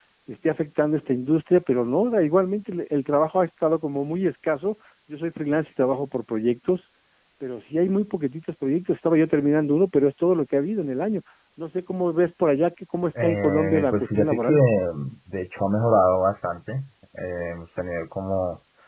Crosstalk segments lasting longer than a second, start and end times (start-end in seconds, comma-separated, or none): 13.2-14.6